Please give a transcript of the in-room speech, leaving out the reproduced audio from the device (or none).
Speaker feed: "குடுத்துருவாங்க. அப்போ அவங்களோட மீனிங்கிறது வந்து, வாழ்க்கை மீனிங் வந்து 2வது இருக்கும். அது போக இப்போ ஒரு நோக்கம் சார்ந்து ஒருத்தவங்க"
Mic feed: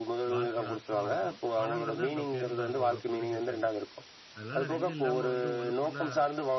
வாழ்க்கையோட அர்த்தமா இருக்கும், பணங்கிறது அந்த பேருந்தா இருக்கும், உங்கள கொண்டு சேர்க்கிறது, அதனால ரெண்டும் இல்லாம வந்து ஒன்னுக்கொன்னா